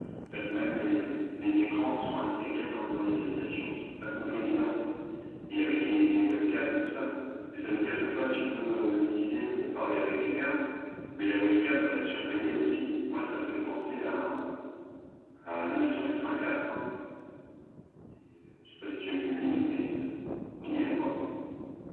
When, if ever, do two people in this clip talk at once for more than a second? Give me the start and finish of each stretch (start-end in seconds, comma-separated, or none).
none